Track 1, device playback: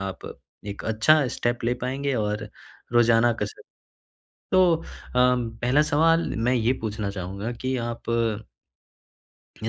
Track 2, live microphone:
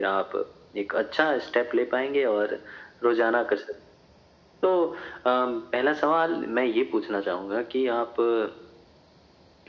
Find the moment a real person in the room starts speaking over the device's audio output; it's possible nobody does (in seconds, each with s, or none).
none